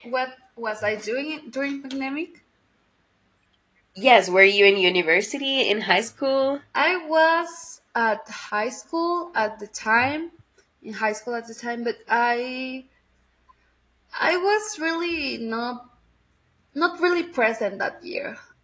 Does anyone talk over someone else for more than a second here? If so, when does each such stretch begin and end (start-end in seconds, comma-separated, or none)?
none